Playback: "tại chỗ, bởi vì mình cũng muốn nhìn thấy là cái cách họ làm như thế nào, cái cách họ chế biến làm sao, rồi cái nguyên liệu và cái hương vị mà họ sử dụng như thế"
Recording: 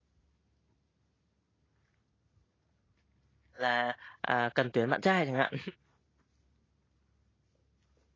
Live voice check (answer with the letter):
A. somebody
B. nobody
A